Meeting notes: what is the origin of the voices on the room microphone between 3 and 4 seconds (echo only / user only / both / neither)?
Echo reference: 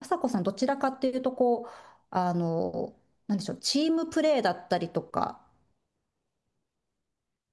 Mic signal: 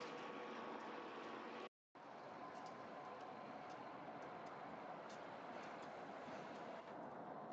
neither